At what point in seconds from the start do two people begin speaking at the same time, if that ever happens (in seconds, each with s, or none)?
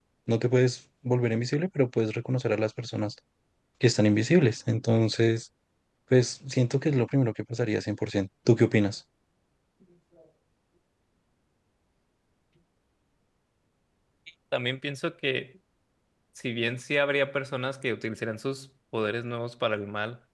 none